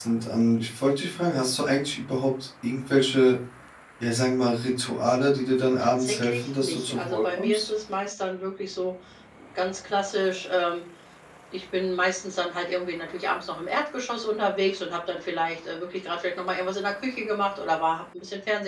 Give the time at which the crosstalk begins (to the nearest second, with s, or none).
6 s